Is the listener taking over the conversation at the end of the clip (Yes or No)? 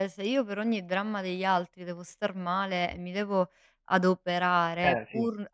No